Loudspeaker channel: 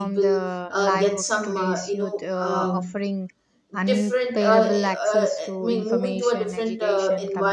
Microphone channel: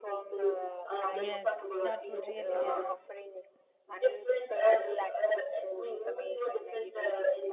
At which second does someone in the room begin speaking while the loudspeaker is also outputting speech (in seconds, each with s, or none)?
1.1 s